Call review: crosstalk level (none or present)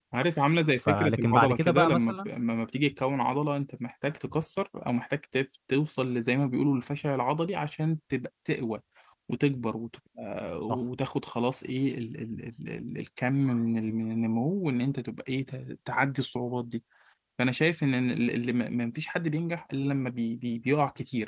present